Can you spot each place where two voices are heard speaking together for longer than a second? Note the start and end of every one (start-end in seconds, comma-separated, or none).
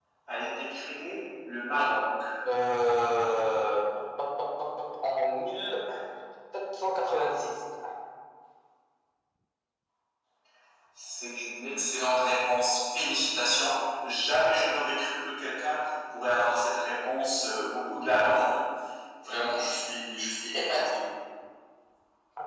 none